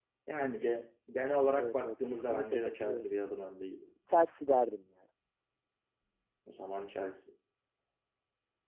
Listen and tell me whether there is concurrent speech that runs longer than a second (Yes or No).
Yes